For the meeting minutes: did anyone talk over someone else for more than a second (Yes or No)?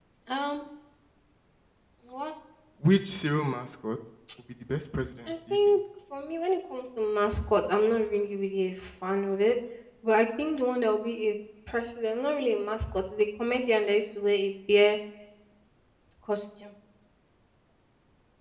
No